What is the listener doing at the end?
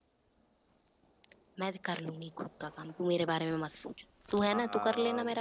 taking over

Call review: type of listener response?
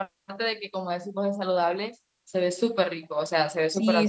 taking over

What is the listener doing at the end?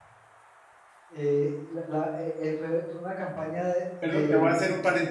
taking over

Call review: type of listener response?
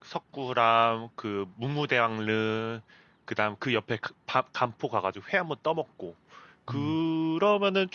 listening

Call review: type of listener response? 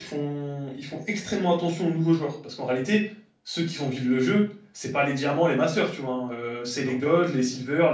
listening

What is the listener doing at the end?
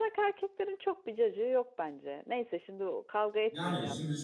taking over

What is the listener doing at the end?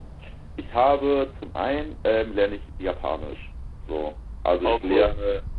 listening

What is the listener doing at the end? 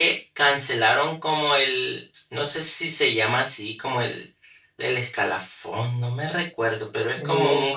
taking over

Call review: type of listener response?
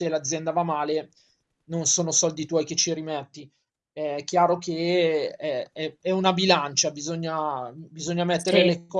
listening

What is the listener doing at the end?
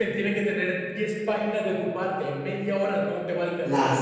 taking over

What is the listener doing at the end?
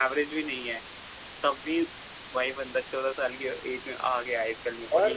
taking over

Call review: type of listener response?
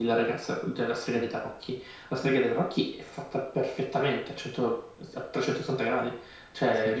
listening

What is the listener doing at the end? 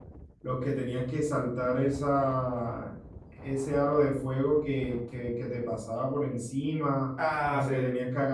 listening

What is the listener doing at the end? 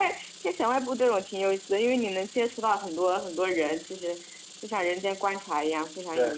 taking over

